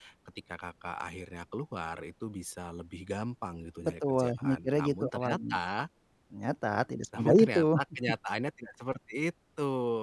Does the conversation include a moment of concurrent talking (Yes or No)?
Yes